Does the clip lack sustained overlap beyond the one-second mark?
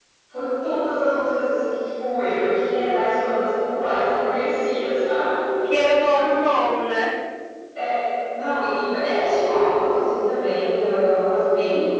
Yes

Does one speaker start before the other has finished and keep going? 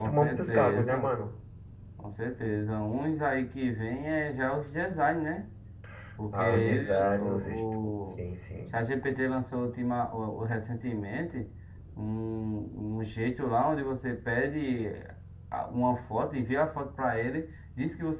Yes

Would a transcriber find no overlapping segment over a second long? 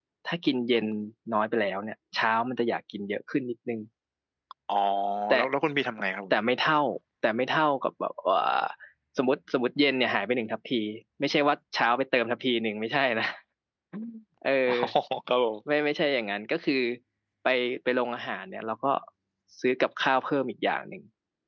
Yes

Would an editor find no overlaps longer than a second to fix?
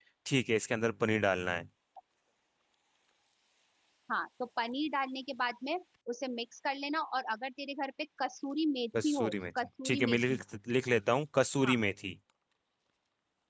No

